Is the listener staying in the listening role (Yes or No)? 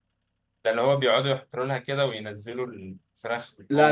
No